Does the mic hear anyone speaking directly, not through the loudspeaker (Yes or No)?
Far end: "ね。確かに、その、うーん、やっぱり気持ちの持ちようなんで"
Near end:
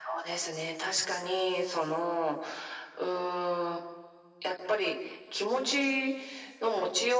No